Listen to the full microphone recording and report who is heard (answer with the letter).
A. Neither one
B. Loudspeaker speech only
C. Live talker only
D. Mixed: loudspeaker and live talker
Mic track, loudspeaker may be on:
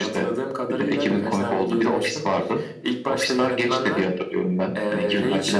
B